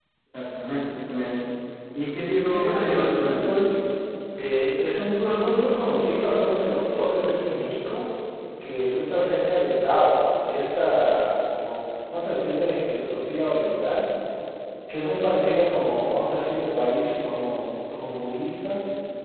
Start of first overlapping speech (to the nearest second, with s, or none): 2 s